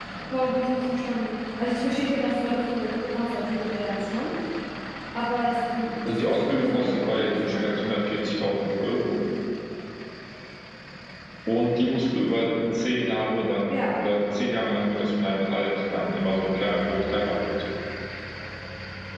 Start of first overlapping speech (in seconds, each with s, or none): 6.0 s